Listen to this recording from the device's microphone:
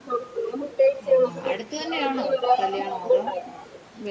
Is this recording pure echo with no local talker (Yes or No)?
No